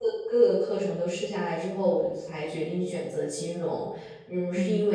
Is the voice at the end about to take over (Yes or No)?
No